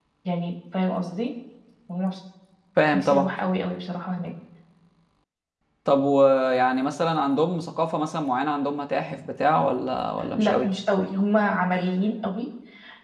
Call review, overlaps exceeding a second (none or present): none